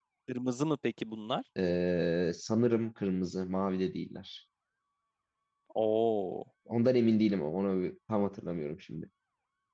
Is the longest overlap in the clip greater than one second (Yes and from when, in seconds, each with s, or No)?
No